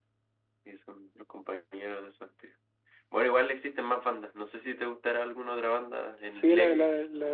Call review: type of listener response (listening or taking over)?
taking over